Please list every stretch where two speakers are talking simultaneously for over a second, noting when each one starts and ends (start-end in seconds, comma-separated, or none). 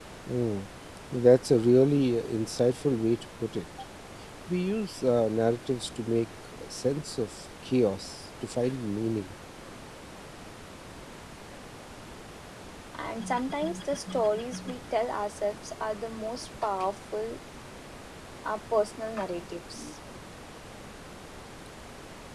none